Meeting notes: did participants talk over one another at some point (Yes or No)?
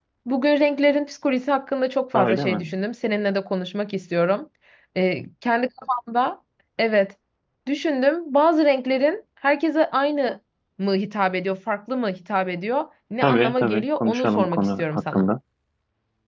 Yes